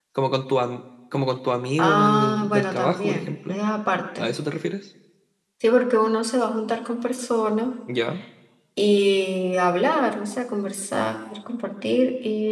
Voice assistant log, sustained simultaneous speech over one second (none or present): present